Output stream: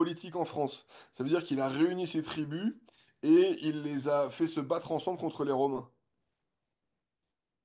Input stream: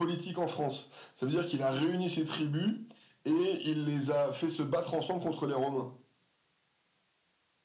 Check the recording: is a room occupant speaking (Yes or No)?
No